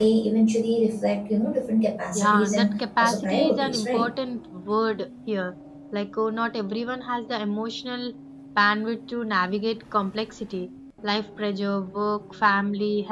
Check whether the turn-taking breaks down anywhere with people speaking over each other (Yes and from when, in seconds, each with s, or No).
Yes, from 2.1 s